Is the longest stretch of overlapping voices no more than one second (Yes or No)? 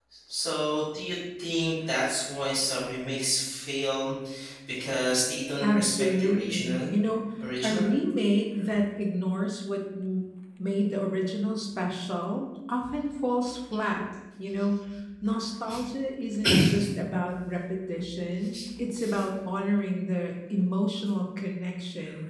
No